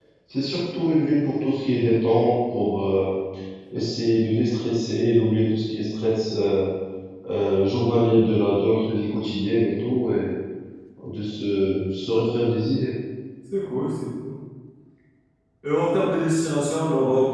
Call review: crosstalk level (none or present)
none